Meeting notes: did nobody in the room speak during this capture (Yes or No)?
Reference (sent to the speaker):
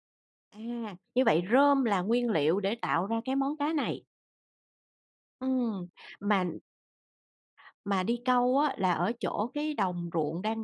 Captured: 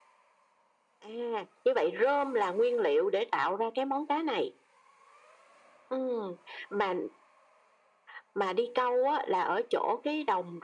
Yes